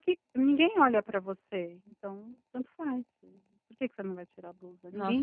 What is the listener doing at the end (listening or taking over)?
taking over